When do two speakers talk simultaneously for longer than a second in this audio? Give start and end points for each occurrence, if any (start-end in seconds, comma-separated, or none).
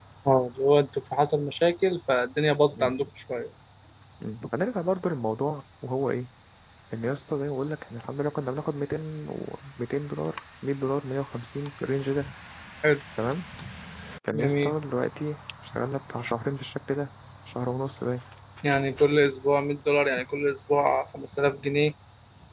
none